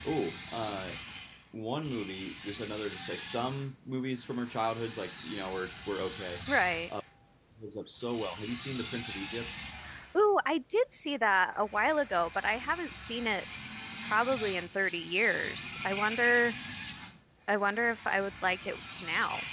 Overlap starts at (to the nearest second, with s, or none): none